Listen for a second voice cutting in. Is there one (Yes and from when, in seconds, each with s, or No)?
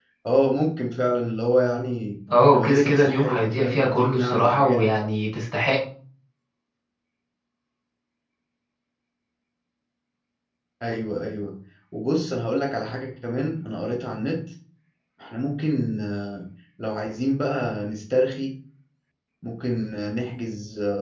Yes, from 2.3 s